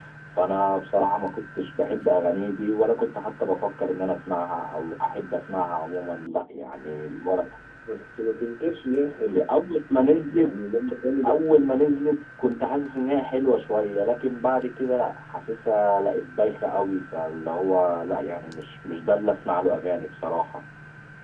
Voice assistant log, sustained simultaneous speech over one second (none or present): none